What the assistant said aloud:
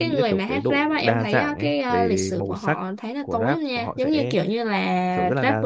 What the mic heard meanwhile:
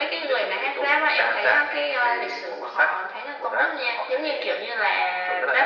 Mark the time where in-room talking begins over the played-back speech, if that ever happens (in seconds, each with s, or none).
none